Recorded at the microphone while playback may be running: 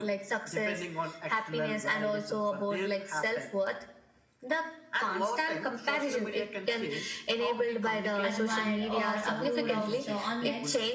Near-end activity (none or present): present